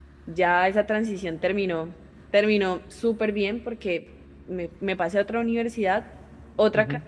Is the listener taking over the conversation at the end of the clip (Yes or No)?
No